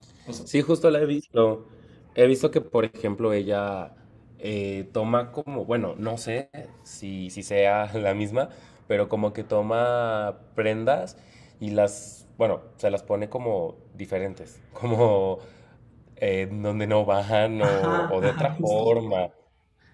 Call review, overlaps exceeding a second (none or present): present